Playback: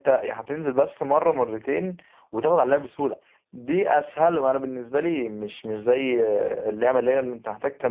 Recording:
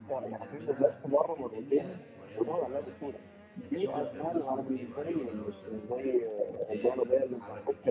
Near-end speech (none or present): present